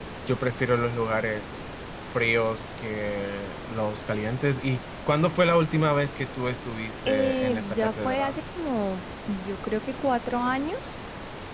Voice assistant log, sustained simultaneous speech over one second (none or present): present